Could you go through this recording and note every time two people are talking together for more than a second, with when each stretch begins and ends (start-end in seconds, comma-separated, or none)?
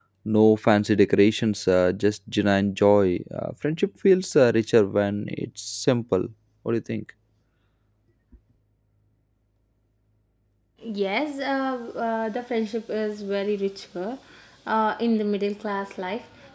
none